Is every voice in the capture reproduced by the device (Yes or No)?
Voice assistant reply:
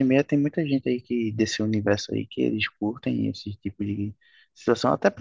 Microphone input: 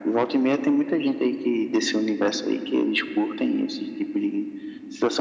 Yes